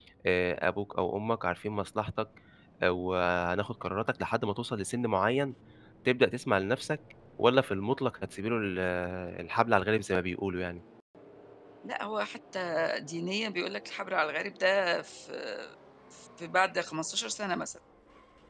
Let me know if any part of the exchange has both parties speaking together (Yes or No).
No